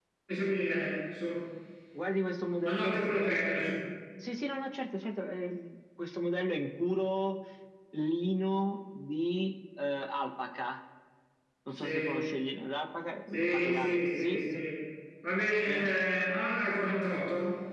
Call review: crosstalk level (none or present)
present